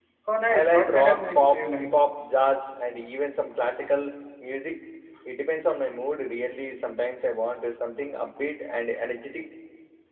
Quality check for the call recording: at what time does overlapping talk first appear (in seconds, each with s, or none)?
0.5 s